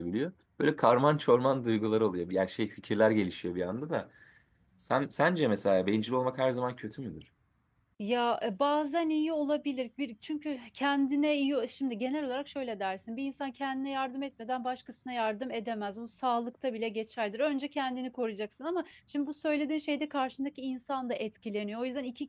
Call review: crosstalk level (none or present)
none